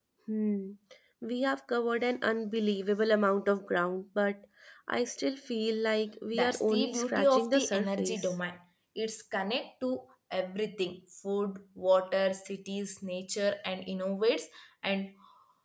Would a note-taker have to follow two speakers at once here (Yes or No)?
Yes